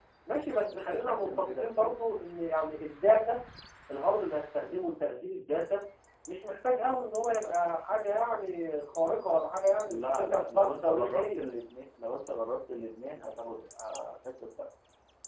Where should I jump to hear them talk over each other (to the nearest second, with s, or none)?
1 s